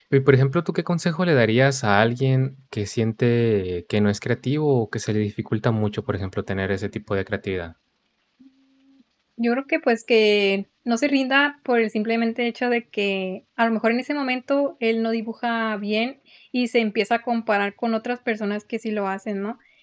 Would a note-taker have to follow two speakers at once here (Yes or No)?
No